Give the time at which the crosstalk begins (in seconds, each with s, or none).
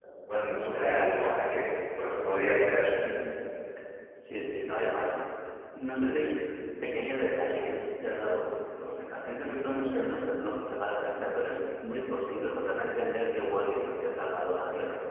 none